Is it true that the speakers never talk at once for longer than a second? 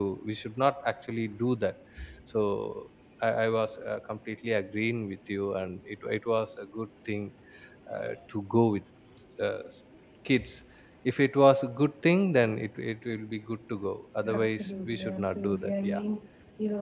No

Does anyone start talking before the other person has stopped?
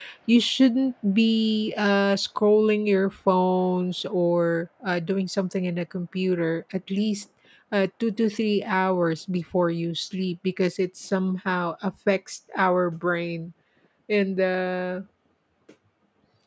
No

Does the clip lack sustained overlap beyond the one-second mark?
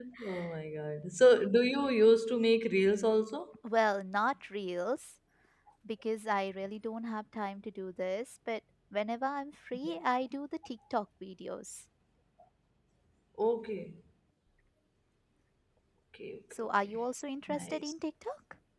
Yes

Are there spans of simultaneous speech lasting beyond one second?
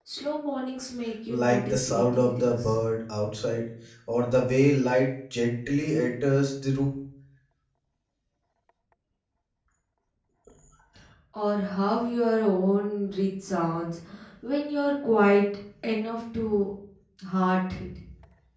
Yes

